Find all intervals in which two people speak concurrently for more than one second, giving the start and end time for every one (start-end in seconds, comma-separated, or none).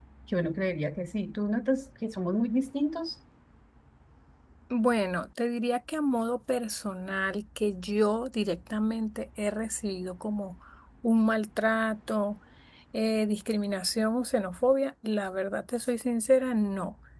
none